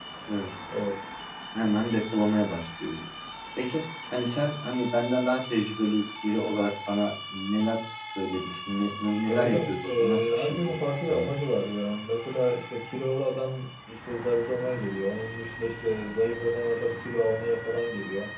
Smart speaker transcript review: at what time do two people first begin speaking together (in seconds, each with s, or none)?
9.3 s